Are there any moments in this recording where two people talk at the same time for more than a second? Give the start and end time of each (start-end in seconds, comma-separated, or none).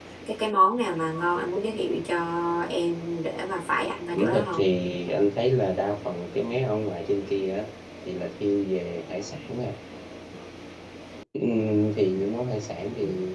none